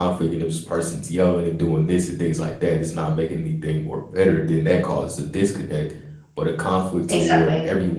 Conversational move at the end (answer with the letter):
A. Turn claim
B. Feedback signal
B